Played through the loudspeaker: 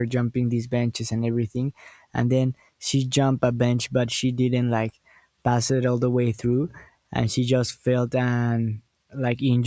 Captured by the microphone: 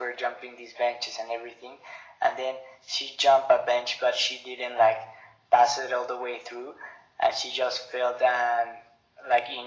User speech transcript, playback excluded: none

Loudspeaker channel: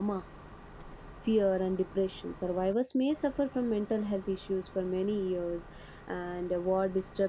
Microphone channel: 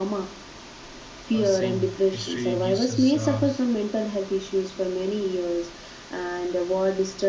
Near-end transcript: I was saying history gives us uh,

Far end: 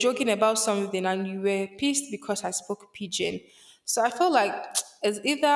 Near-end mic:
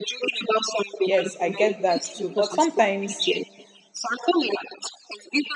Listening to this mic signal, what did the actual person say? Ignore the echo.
Yes, I get that too. But sometimes

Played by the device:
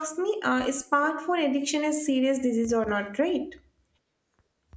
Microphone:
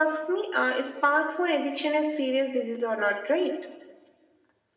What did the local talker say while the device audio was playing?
none

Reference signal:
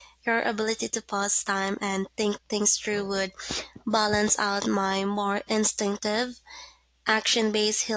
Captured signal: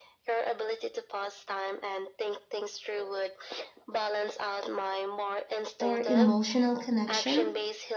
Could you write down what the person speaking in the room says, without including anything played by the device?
or emotional connection?

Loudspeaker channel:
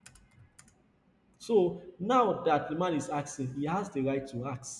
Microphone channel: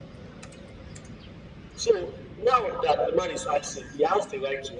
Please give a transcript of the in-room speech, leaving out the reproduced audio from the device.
none

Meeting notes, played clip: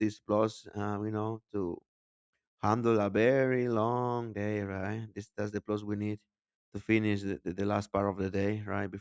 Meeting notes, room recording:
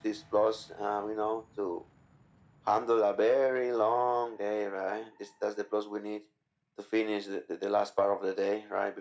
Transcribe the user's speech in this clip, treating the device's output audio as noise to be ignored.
none

